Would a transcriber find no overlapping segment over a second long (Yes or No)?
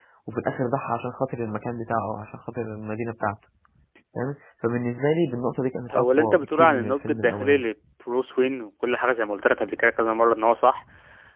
No